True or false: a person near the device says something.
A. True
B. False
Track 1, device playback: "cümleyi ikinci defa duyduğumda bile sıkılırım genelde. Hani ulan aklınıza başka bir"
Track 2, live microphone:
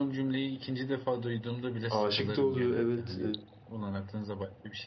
A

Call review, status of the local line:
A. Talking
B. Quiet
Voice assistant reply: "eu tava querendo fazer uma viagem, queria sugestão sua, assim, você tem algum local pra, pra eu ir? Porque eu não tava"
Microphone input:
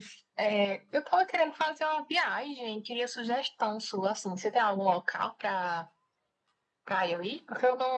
B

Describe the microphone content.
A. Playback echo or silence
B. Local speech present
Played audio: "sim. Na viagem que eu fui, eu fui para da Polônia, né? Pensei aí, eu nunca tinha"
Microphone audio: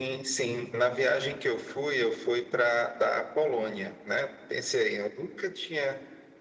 A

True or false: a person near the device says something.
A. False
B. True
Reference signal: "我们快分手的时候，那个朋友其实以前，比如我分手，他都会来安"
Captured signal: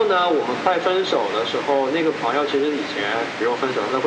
A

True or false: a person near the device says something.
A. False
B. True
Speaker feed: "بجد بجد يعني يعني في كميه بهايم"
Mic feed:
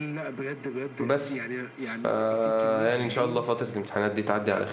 B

